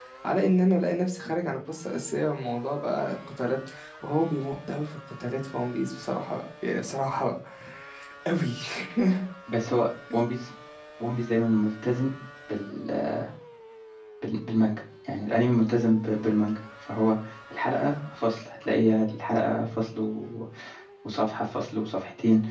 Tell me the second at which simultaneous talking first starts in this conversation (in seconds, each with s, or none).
none